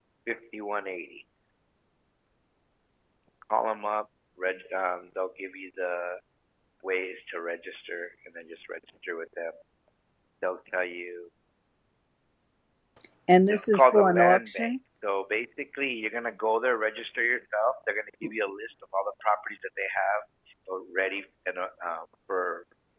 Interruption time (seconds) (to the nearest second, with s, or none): 14 s